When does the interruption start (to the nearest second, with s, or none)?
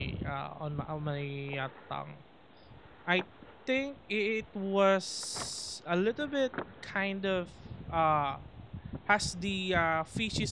none